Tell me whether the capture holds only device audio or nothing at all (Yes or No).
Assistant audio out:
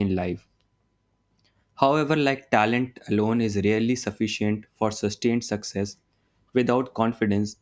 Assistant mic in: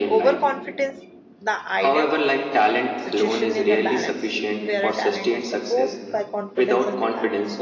No